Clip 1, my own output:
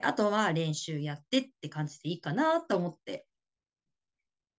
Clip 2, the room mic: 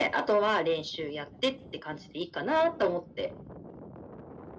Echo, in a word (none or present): present